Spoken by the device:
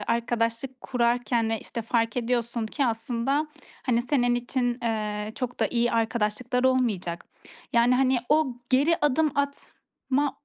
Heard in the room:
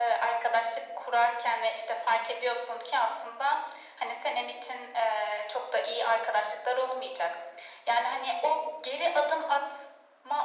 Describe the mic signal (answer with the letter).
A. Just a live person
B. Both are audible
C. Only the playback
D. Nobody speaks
C